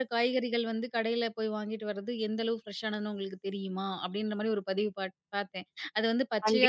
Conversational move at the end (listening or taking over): listening